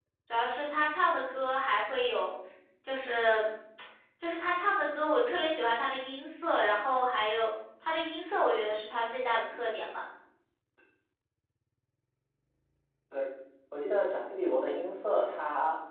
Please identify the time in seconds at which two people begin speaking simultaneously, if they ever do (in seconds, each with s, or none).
none